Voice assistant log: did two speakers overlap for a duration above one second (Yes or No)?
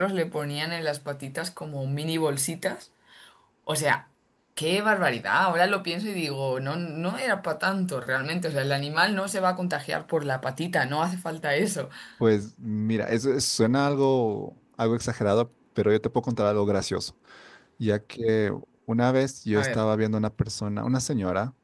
No